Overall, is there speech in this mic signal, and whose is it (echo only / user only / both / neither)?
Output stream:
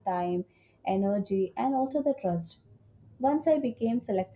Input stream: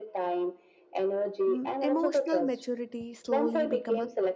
both